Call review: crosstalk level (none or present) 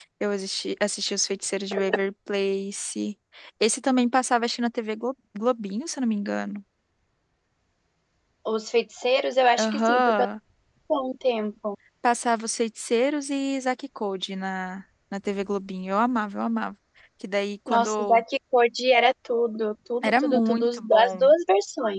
present